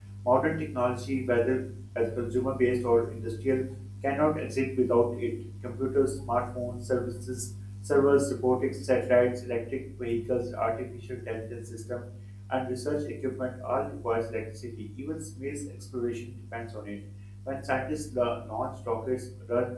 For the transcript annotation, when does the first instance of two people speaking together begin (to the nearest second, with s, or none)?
none